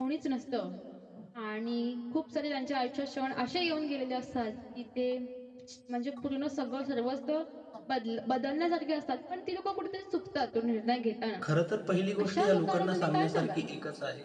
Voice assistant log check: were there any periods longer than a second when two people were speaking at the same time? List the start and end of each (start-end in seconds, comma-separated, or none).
11.9-13.7